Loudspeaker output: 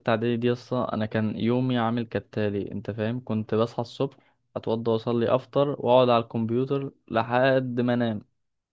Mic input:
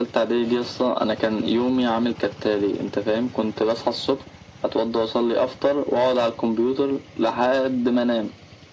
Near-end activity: none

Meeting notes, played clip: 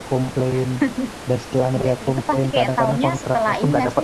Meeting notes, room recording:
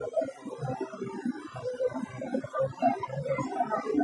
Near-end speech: none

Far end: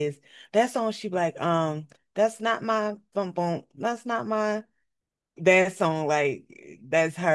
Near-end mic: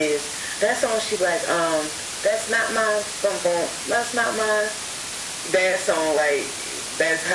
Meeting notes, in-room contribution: none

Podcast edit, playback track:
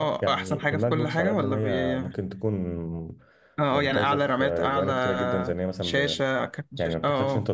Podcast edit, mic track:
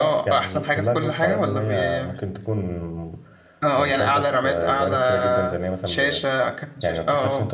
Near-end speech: none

